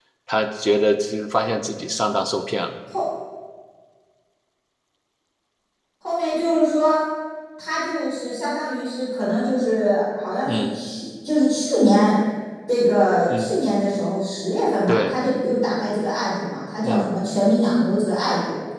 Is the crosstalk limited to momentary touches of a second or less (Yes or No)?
Yes